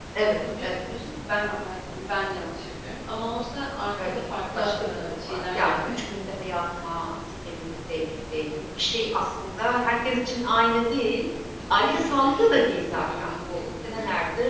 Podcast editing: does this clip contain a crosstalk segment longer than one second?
Yes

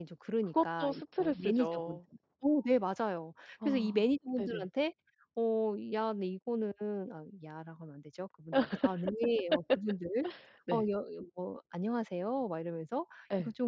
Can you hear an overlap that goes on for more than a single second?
Yes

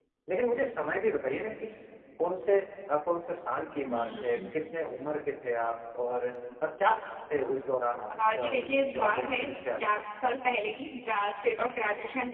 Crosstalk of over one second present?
Yes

